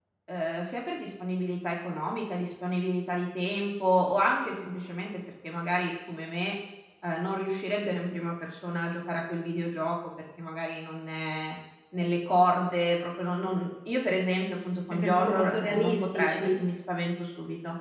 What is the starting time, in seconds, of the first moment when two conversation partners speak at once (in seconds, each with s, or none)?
14.9 s